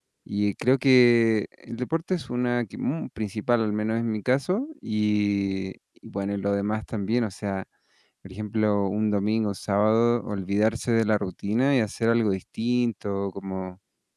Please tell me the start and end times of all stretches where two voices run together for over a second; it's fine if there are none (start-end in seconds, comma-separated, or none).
none